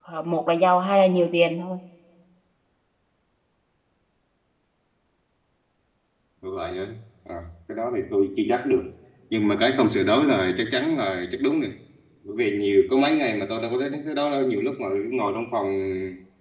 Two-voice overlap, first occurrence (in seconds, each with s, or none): none